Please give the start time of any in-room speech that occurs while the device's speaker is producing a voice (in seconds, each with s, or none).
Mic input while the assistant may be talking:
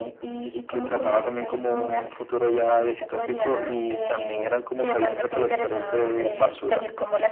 none